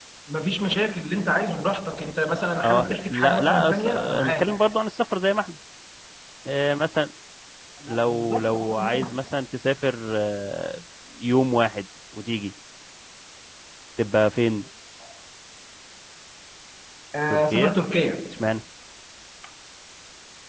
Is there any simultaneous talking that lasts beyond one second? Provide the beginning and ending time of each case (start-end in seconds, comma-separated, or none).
2.6-4.8, 7.9-9.2